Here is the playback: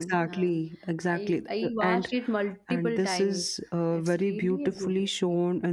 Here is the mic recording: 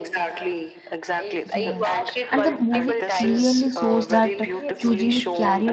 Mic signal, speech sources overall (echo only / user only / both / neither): both